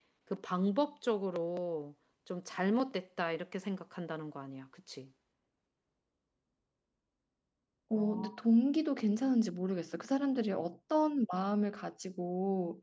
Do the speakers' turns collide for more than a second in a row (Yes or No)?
No